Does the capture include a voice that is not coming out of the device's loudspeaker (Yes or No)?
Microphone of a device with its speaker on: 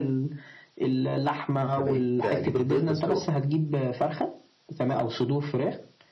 Yes